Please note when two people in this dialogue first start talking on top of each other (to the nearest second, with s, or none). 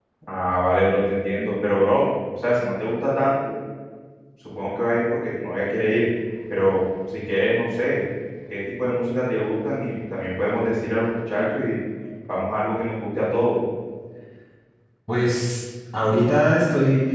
none